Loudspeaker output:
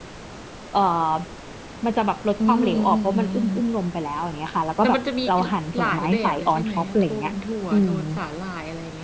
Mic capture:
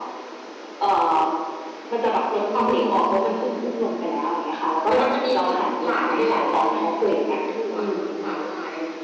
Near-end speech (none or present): none